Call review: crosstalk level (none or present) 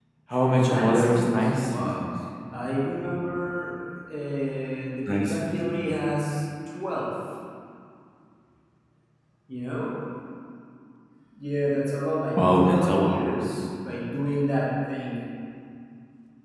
present